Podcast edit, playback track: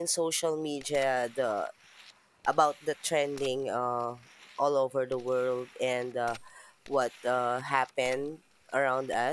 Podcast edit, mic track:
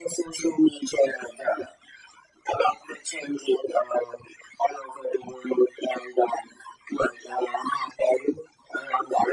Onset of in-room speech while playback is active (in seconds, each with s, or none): none